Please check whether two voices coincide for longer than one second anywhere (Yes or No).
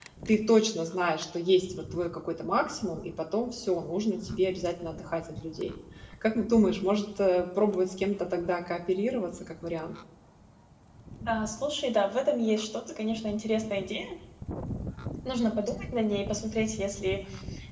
No